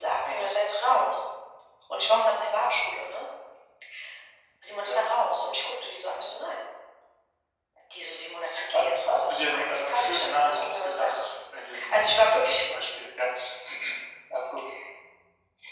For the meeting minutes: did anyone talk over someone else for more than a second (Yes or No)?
Yes